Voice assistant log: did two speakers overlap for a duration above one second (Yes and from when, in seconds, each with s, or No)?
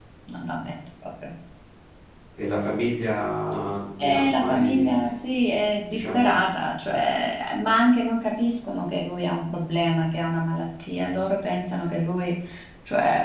Yes, from 4.0 s